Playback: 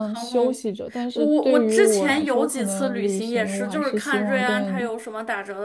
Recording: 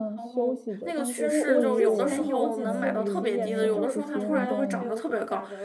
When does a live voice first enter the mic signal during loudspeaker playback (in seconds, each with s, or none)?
0.8 s